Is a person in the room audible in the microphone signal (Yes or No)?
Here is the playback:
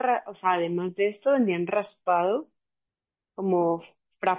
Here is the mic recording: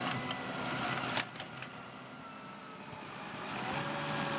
No